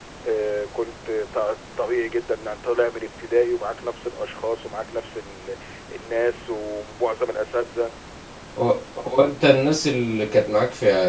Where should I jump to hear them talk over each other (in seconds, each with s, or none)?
none